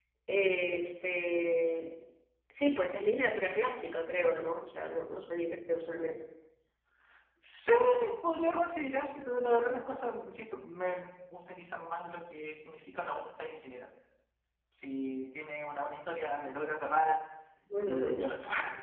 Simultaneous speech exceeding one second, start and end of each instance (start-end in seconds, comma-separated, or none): none